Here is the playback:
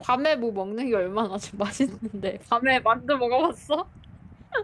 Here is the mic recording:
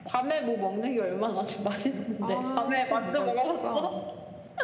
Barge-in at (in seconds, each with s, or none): 2.2 s